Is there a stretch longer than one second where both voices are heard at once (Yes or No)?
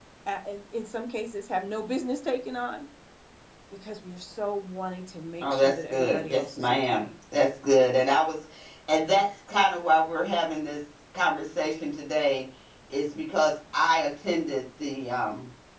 Yes